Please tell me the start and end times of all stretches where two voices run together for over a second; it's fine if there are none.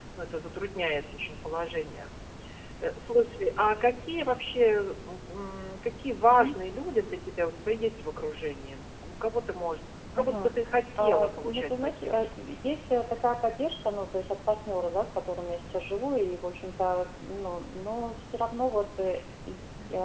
11.0-12.2

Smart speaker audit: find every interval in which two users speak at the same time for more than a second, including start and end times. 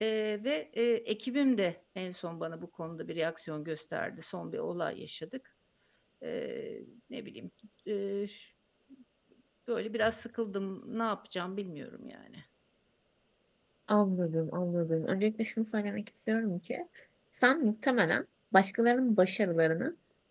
none

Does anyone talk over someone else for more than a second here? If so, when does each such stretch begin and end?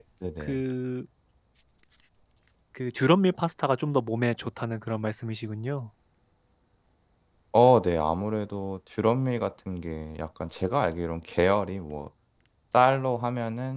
none

